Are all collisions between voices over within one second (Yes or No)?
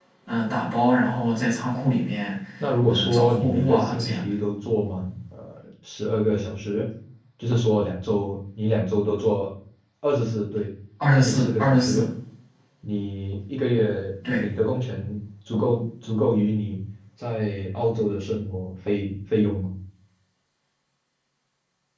No